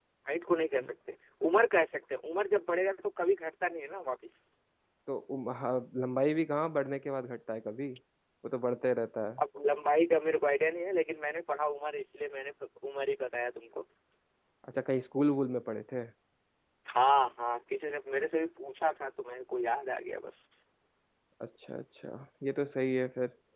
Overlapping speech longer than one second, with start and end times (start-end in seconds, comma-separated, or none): none